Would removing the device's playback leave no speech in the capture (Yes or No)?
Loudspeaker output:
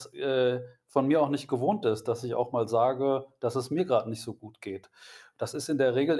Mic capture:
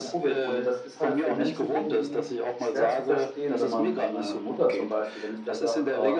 No